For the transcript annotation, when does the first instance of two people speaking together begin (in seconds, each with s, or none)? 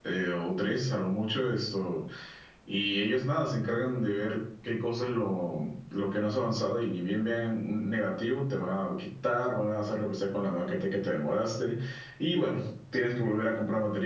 none